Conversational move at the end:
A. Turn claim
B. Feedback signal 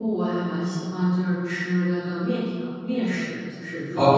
A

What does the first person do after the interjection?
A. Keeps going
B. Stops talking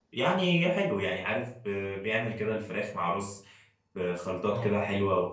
A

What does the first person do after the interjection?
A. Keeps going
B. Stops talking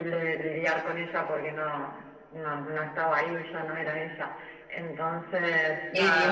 B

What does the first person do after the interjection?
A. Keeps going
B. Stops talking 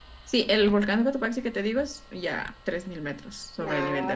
B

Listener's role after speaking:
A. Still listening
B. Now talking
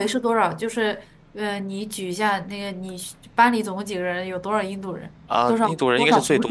B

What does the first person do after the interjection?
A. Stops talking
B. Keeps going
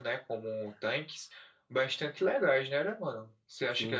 A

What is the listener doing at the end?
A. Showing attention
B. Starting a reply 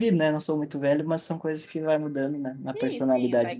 B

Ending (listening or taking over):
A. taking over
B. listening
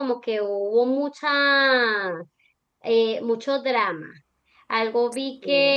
B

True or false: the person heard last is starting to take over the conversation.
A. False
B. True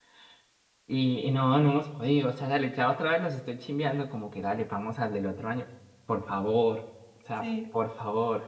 A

